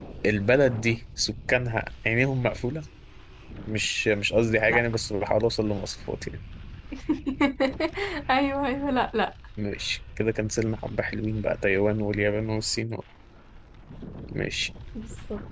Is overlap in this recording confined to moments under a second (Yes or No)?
Yes